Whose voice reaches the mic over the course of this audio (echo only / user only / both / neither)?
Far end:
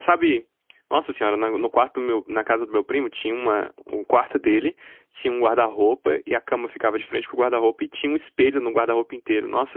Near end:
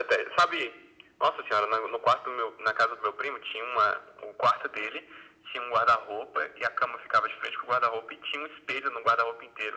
echo only